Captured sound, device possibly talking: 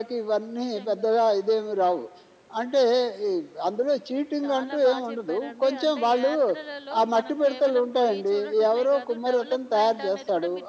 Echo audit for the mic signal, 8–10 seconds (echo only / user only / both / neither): both